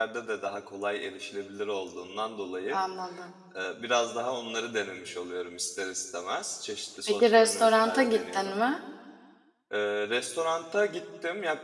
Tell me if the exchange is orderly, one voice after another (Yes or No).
No